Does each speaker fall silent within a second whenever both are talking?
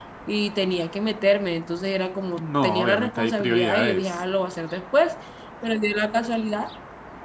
No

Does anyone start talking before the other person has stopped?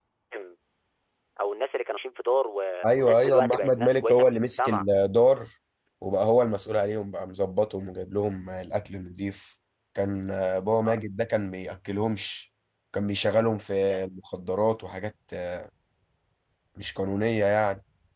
Yes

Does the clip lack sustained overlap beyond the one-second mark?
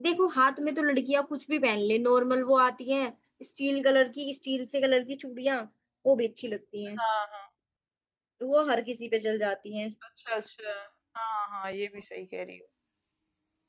Yes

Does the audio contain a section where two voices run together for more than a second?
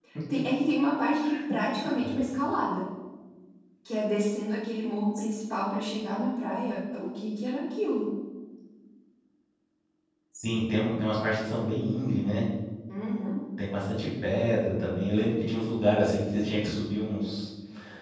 No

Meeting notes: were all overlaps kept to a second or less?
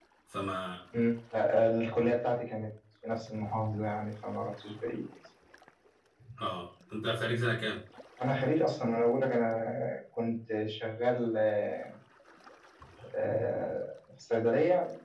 Yes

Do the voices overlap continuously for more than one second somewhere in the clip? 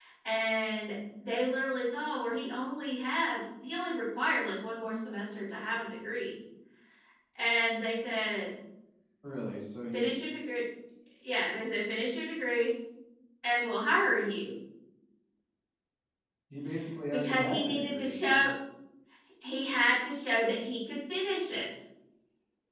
Yes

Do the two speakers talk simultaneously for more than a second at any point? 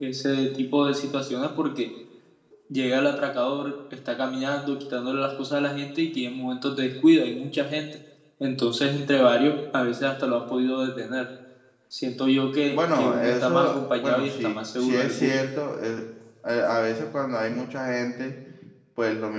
Yes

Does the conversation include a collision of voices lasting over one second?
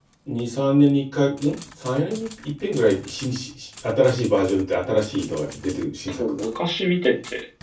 No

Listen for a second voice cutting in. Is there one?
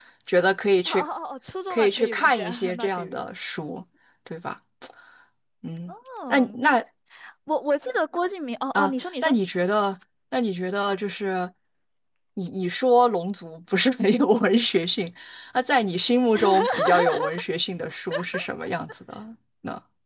Yes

